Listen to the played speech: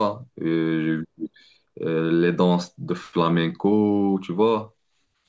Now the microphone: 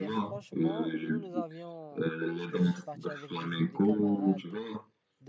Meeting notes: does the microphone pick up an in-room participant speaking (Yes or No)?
Yes